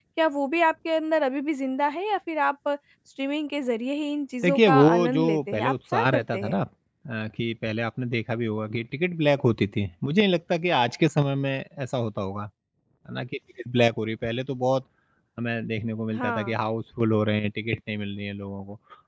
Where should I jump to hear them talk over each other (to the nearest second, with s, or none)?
4 s